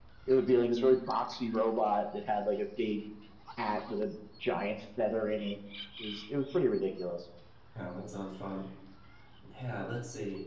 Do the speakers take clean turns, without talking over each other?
Yes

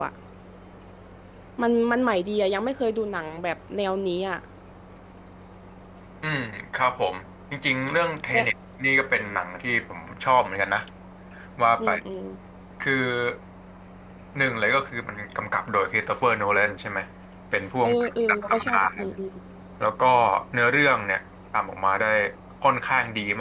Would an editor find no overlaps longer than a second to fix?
No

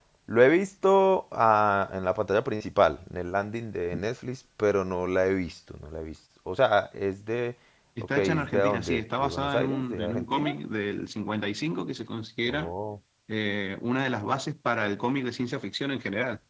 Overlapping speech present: Yes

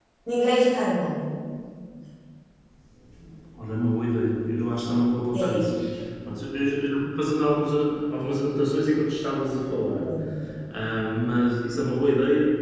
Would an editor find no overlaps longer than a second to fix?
Yes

